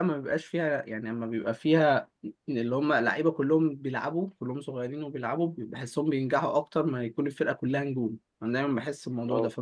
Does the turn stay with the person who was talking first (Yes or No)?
Yes